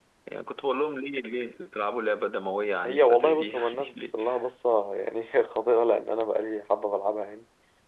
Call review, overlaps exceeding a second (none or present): present